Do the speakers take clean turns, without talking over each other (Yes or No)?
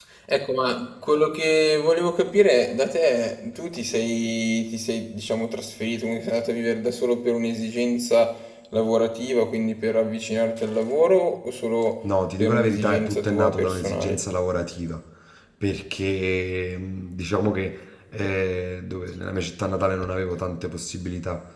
No